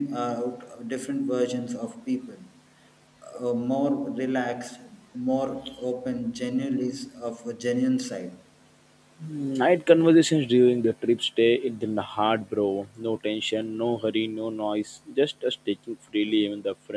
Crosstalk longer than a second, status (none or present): none